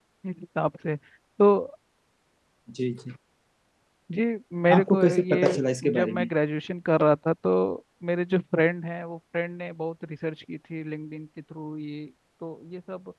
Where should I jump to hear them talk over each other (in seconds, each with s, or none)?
4.7 s